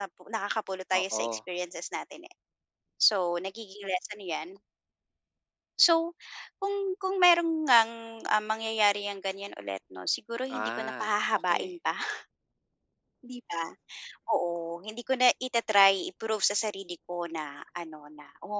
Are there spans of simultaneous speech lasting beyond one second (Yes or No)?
Yes